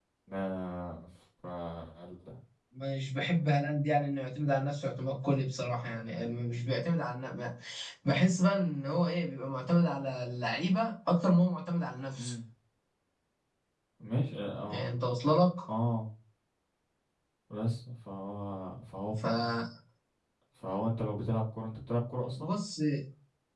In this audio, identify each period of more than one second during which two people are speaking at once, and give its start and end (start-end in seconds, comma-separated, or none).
none